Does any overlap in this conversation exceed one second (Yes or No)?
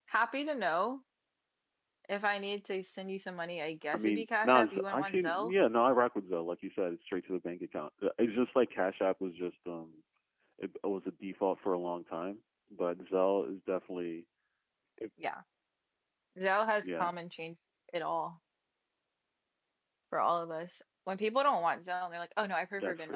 Yes